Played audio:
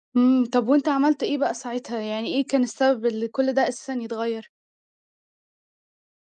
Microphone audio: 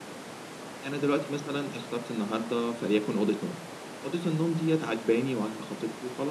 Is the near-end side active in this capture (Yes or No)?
Yes